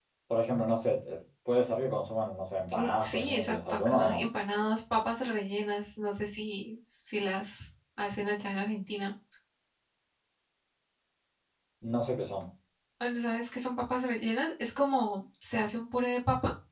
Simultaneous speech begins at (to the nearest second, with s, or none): 3 s